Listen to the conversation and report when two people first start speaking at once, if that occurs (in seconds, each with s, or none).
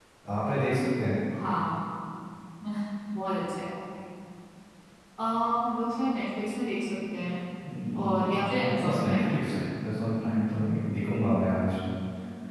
8.0 s